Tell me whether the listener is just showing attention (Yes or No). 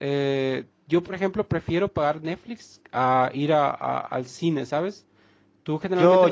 No